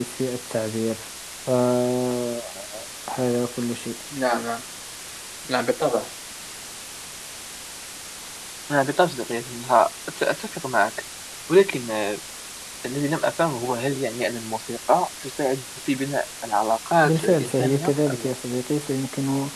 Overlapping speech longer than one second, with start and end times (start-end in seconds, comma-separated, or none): 17.1-18.3